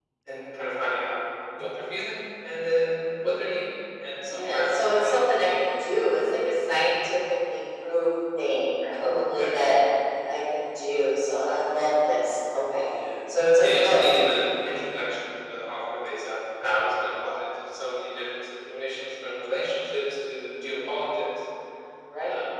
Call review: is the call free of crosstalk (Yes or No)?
No